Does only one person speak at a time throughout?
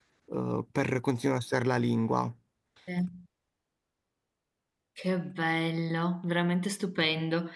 Yes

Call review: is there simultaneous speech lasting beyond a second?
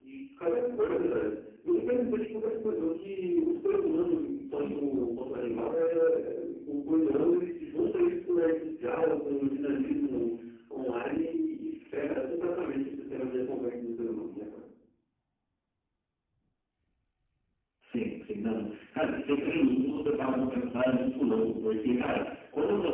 No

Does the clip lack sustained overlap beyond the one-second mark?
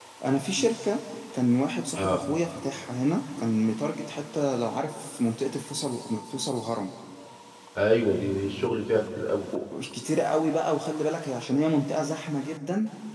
Yes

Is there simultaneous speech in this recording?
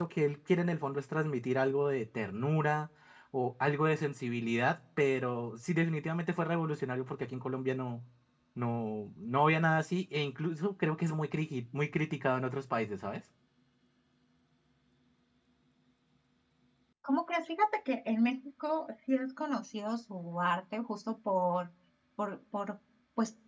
No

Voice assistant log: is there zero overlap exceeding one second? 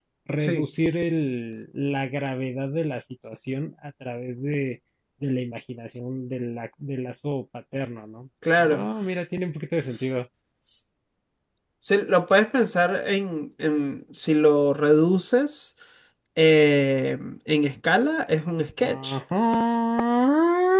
Yes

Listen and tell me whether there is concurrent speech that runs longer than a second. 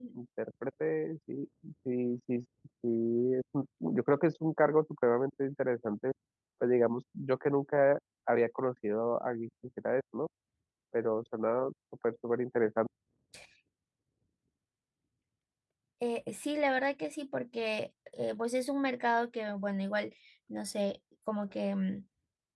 No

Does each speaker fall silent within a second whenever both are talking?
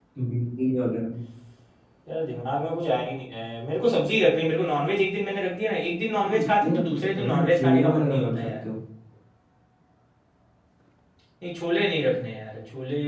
No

